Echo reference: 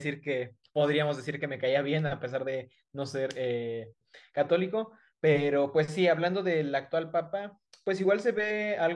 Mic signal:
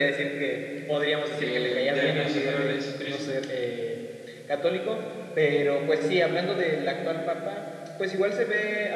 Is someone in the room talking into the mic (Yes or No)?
Yes